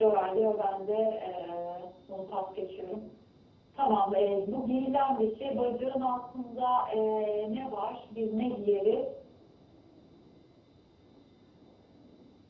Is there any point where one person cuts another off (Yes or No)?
No